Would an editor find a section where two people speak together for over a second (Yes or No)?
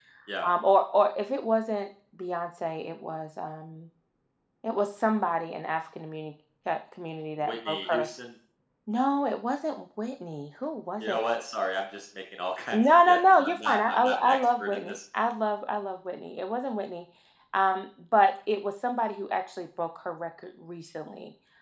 Yes